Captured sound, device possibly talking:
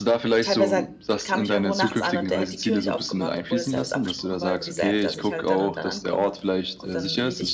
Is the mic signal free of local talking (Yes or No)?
No